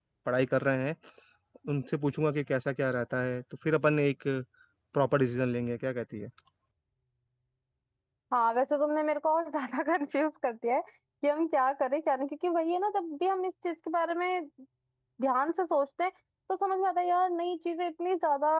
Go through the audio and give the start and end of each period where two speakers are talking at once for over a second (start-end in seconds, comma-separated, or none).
none